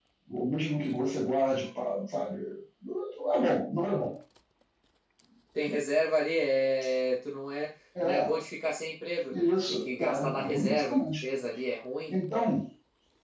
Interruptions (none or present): present